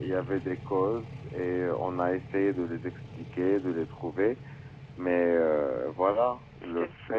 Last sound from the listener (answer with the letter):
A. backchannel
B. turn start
A